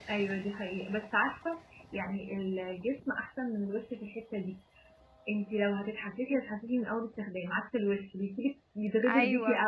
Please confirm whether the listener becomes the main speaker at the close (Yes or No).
Yes